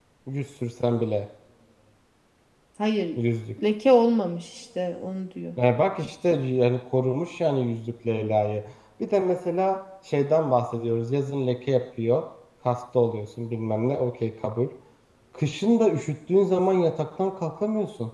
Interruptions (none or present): none